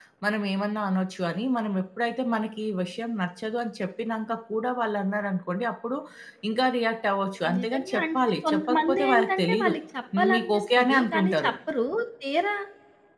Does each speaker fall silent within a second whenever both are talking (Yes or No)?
No